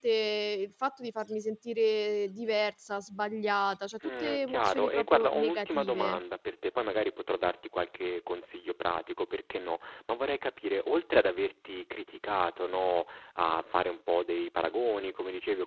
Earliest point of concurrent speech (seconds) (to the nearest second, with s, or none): 4 s